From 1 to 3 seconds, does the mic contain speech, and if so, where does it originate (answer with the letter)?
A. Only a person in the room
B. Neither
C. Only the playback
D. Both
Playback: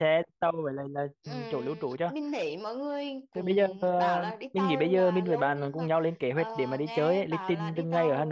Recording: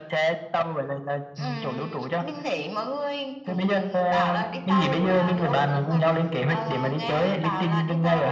C